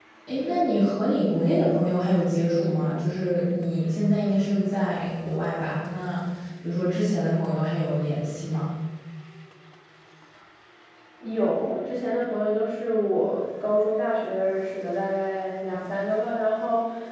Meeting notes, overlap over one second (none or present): none